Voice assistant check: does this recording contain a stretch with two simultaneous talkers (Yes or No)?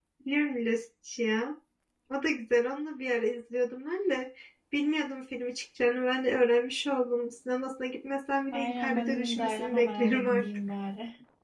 Yes